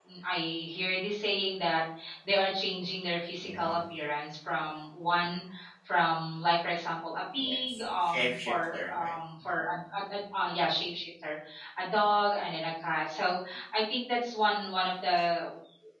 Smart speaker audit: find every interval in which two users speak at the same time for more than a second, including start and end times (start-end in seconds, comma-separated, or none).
7.4-9.1